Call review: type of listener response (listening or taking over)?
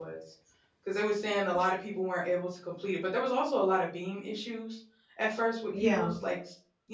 listening